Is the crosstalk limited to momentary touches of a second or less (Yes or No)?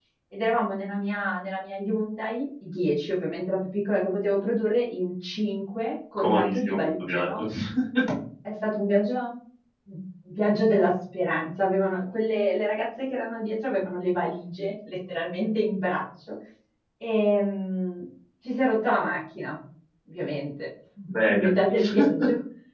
No